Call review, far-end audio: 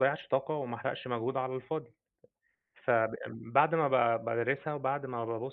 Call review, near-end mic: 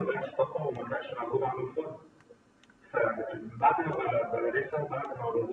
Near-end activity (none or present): none